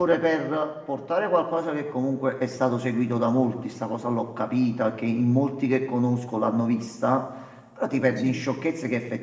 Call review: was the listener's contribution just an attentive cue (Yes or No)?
Yes